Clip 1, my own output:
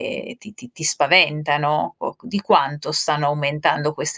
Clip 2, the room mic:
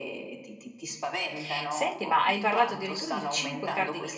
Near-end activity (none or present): present